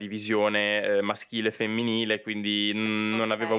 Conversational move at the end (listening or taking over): listening